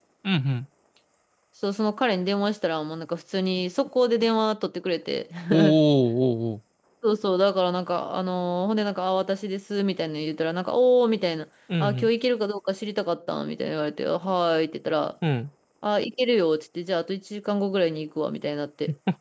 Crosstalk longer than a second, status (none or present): none